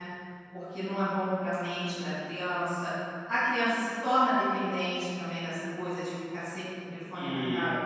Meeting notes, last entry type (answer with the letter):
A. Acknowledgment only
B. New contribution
B